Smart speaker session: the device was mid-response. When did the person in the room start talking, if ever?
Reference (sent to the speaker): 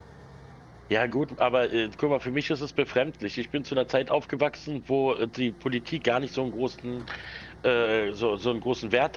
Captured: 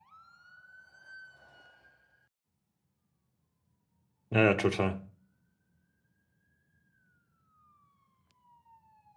4.3 s

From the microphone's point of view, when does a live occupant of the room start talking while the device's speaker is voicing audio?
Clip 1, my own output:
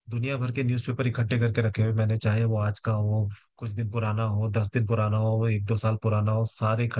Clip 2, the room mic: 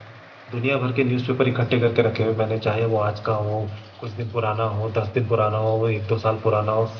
none

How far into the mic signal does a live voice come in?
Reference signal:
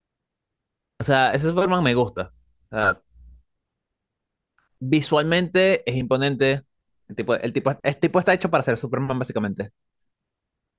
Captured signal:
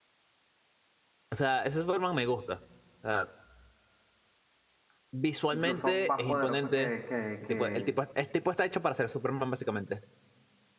5.5 s

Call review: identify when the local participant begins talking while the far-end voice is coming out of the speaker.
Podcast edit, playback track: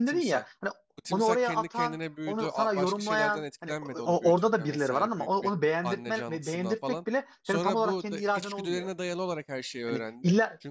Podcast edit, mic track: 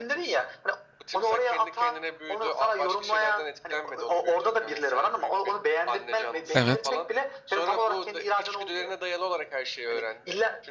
6.5 s

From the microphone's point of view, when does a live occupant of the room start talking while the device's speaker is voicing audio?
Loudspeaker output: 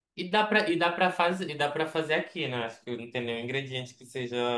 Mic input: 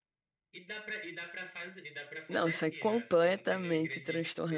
2.2 s

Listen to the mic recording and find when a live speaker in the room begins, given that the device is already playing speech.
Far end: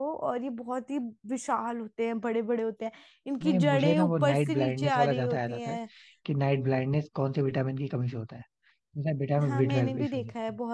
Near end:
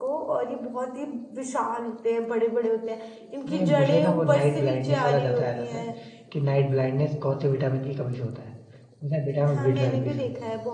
none

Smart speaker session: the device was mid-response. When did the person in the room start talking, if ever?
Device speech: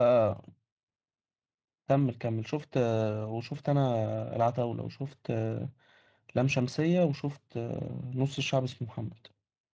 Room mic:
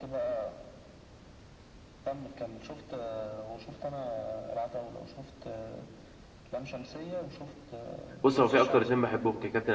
8.2 s

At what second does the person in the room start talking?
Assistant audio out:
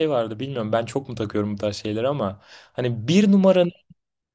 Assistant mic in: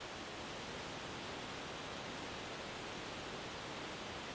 none

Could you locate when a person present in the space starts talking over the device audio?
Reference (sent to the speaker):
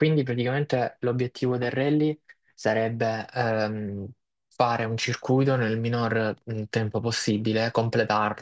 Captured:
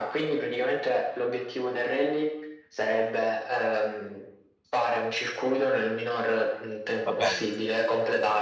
7.0 s

